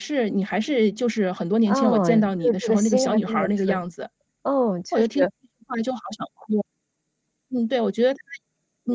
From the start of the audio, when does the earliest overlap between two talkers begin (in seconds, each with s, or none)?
1.7 s